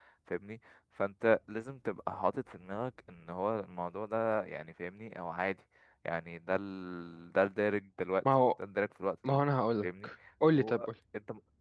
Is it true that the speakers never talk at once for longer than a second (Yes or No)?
Yes